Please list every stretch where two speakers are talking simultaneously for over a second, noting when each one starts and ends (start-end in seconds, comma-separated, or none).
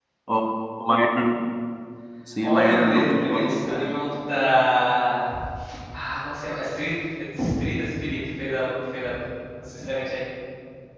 2.4-4.0